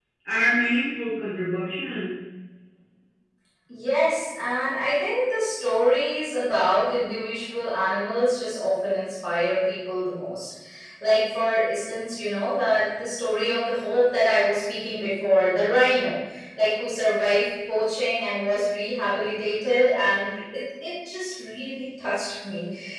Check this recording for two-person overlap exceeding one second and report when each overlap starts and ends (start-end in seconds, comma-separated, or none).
none